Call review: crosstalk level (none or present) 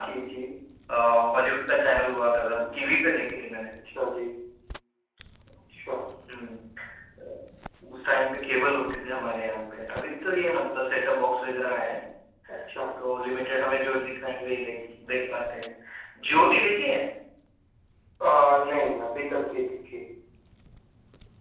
none